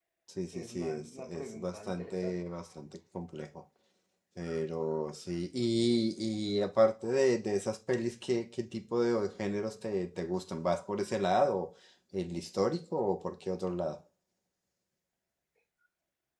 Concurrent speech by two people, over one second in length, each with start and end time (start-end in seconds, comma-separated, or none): 0.5-2.4